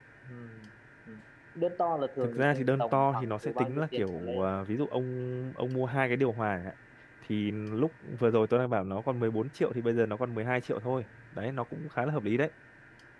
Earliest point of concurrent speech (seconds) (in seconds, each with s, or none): 2.2 s